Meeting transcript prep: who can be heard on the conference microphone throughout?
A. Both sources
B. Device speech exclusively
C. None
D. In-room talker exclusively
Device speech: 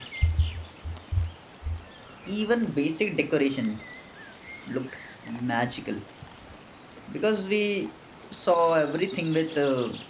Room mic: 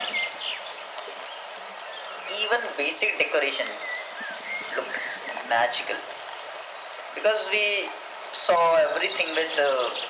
B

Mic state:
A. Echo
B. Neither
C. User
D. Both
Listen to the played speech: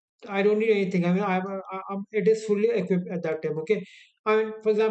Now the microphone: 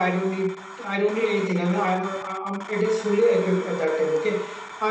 A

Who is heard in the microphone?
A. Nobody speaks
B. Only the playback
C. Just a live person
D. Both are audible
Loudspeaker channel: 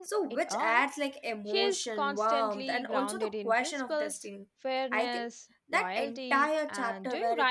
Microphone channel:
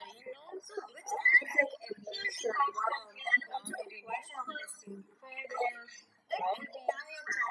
B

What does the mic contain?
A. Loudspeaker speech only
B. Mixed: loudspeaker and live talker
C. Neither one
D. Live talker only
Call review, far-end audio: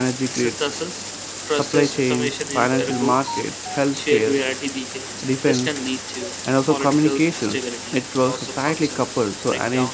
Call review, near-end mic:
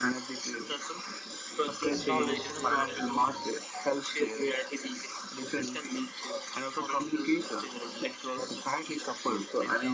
B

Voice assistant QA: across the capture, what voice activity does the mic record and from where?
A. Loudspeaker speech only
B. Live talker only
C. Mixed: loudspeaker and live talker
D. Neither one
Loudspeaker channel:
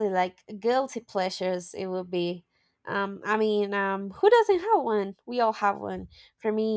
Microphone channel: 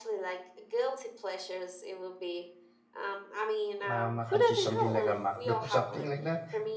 C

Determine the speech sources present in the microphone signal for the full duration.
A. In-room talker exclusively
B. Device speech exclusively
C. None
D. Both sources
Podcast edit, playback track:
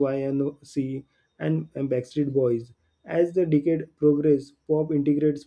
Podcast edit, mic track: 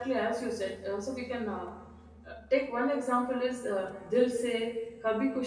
A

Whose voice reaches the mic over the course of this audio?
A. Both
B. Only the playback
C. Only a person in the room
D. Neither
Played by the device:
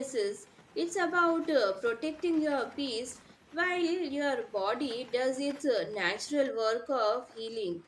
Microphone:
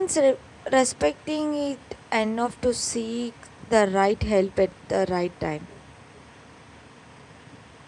C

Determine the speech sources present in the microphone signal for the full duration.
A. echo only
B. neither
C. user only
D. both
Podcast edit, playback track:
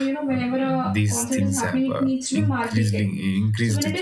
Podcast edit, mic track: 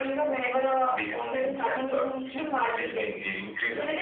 A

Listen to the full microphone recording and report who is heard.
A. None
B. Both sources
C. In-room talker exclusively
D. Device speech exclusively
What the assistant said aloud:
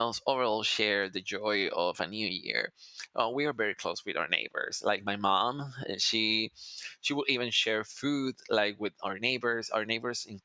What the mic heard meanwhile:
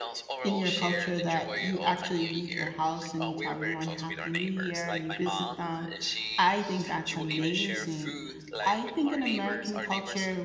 B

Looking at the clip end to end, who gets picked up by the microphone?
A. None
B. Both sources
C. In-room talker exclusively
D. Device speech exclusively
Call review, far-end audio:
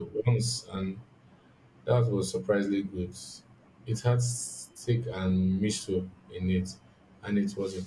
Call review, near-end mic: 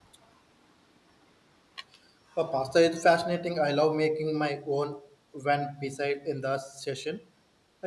C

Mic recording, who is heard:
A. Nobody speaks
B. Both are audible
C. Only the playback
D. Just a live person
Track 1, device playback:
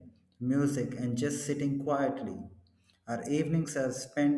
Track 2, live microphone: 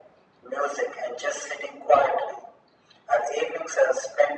C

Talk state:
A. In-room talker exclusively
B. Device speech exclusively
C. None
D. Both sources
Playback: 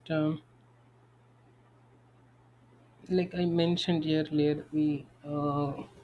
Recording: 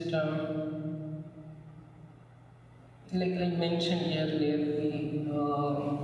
B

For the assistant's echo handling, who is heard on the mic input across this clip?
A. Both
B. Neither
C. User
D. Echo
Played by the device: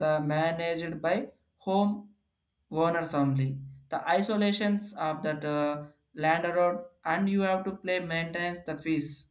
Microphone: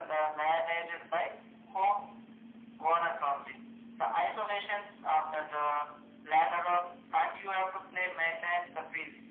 D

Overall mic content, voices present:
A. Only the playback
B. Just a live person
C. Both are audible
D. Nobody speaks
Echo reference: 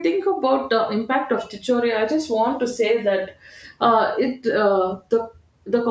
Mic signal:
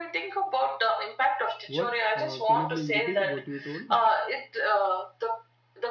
C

